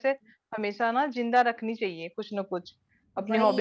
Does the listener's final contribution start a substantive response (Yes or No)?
No